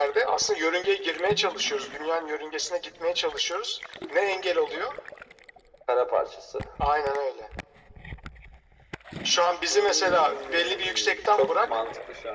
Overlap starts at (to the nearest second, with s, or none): 10 s